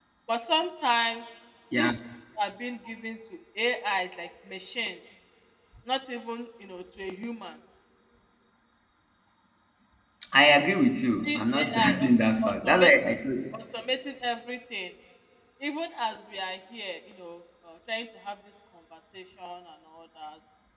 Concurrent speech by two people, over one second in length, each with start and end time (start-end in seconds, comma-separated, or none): 11.2-13.2